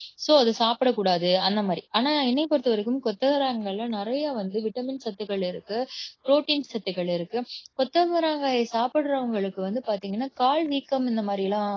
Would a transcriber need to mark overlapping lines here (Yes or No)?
No